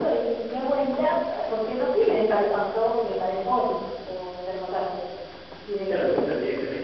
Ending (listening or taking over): taking over